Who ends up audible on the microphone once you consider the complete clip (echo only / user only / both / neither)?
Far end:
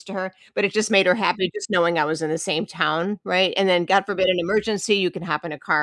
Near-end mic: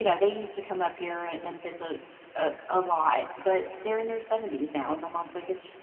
user only